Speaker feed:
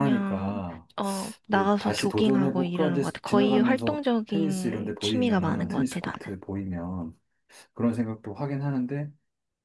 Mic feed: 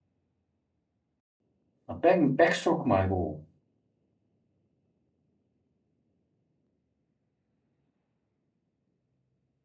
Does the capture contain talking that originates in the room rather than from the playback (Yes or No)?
Yes